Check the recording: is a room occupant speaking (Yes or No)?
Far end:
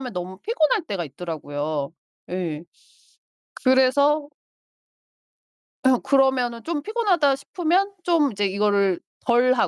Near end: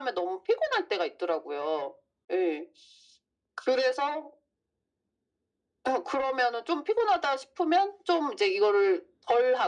No